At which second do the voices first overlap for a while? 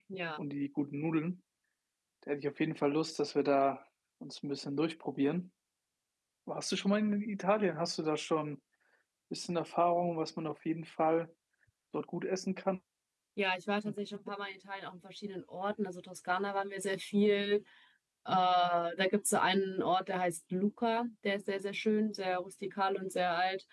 none

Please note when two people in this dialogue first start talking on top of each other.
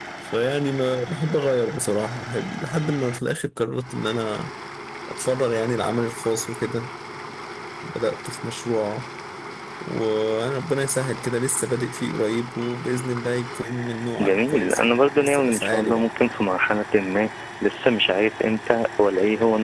14.2 s

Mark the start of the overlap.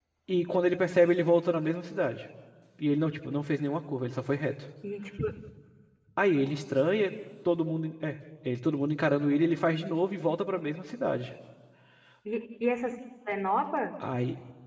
none

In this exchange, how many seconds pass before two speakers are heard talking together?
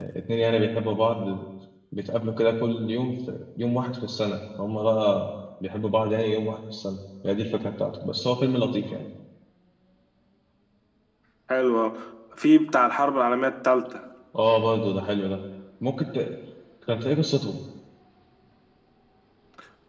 none

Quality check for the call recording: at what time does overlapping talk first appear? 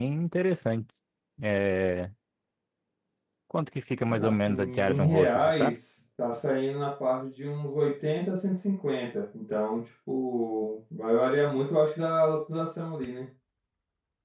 4.2 s

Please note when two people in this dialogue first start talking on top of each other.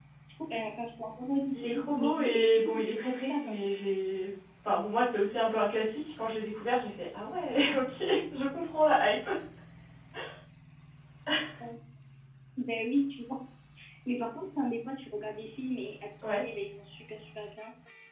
1.5 s

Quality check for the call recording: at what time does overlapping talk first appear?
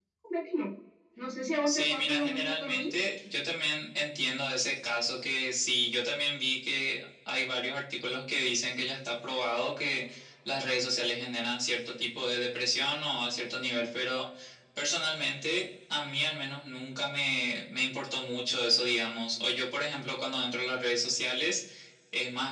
1.7 s

